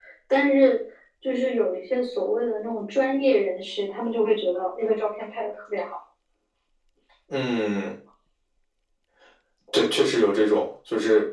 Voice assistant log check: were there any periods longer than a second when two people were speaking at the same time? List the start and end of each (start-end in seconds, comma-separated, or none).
none